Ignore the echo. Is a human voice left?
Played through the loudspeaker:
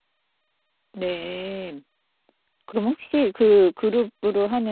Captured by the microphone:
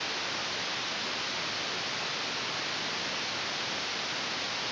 No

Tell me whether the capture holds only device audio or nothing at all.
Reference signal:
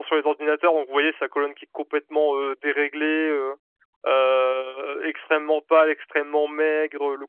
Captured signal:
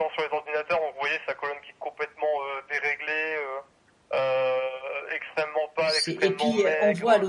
No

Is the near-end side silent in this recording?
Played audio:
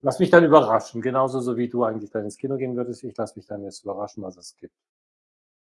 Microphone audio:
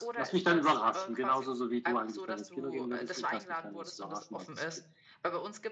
No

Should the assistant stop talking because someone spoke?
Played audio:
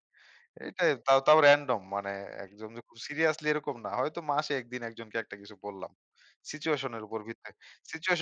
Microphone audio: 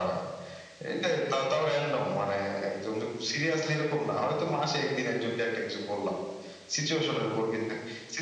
No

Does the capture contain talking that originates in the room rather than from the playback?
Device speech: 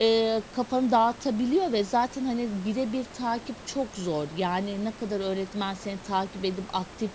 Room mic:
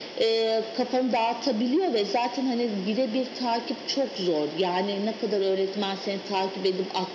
No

